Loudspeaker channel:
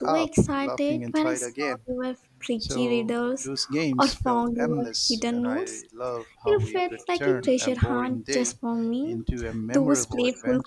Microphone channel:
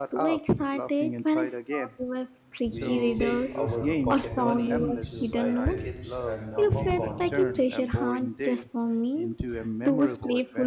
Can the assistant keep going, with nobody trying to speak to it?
No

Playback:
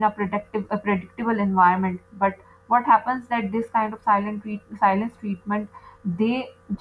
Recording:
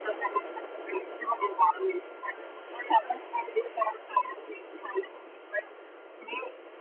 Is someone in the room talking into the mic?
No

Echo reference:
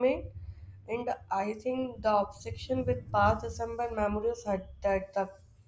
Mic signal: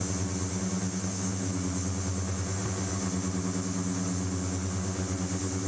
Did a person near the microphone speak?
No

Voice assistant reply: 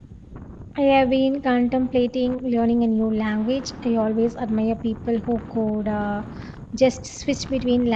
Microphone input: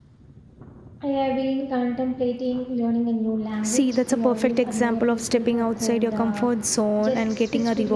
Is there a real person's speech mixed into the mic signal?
Yes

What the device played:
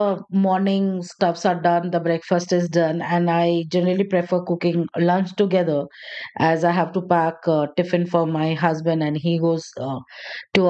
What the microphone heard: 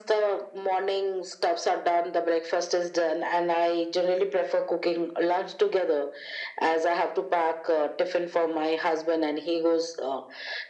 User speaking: No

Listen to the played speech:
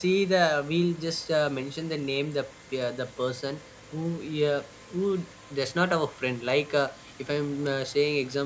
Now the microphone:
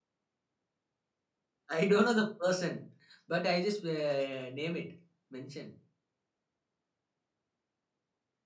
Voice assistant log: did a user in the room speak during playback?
Yes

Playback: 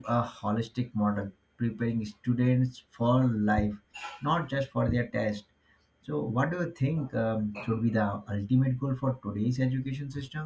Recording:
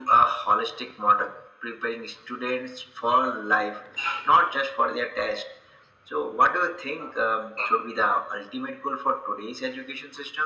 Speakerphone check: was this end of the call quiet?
Yes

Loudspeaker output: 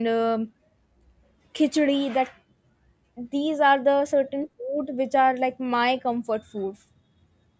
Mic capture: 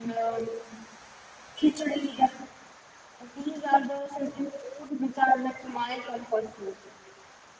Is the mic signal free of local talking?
Yes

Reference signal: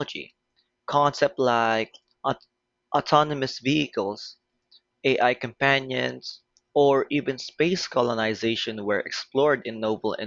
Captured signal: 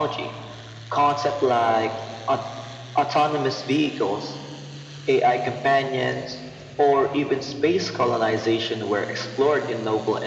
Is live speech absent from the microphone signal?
Yes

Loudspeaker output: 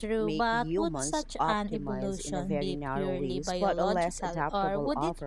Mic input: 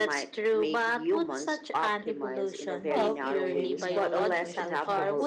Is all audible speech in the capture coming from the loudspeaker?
No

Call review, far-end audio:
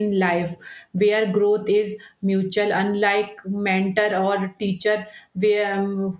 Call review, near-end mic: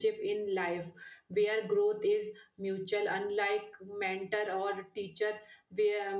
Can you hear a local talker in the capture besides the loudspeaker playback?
No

